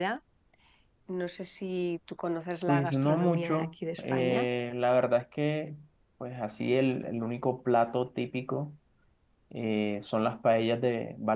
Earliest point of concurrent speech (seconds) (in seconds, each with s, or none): 2.7 s